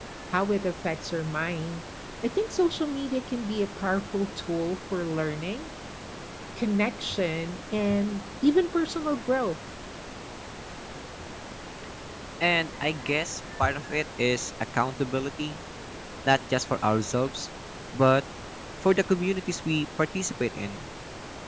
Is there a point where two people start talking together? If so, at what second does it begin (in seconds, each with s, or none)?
none